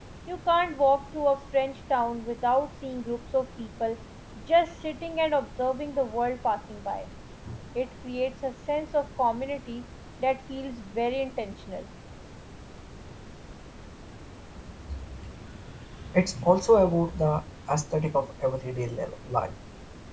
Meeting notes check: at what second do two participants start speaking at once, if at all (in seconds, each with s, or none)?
none